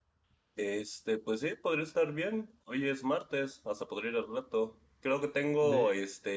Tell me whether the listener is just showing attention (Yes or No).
Yes